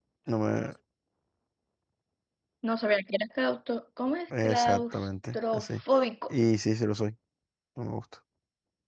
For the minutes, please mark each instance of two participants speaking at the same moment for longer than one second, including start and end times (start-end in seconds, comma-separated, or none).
4.4-5.8